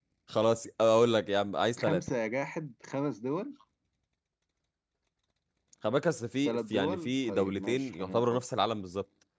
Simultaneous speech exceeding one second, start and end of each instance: 6.5-8.4

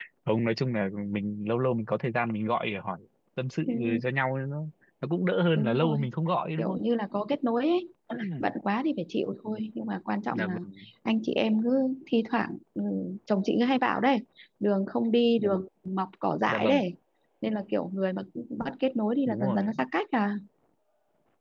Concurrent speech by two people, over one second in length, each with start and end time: none

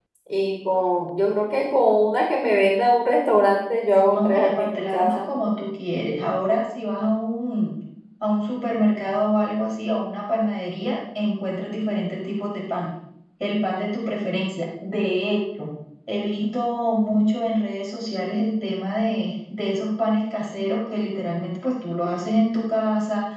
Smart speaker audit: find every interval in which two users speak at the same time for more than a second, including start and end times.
4.0-5.3

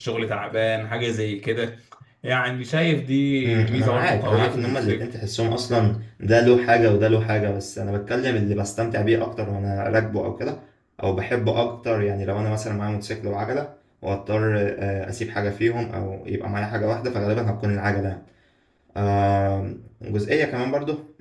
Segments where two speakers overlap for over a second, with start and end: 3.4-5.0

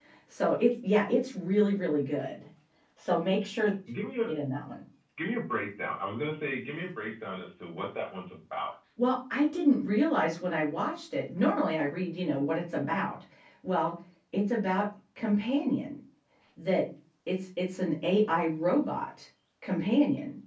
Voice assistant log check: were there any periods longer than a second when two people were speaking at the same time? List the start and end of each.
none

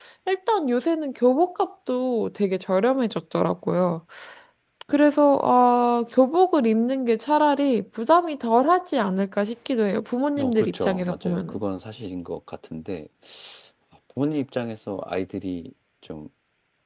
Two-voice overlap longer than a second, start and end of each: 10.4-11.6

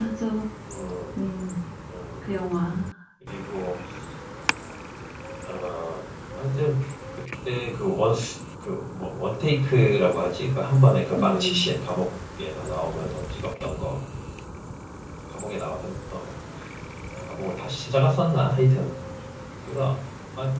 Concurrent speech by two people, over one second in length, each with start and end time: none

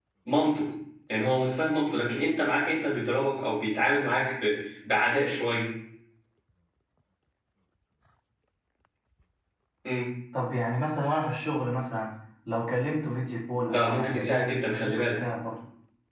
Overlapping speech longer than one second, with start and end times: 13.7-15.1

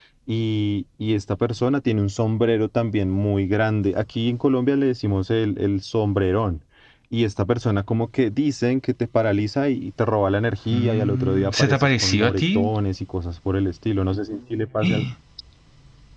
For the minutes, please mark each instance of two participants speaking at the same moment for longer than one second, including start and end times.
10.7-12.7

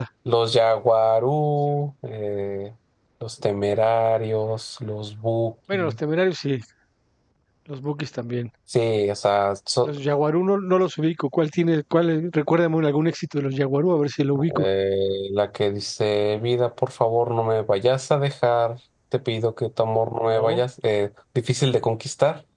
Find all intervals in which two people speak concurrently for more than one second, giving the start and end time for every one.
none

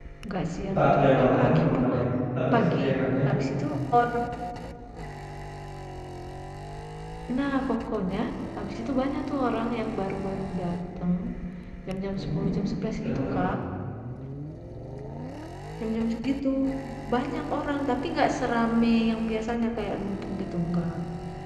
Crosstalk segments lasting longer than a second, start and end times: 0.8-2.0

